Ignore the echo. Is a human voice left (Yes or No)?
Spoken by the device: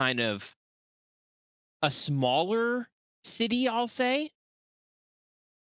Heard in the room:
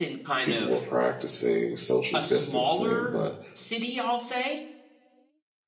Yes